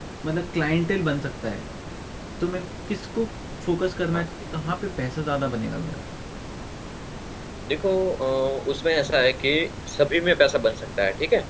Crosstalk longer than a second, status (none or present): none